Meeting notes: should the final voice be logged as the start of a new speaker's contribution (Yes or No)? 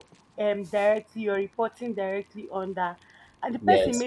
No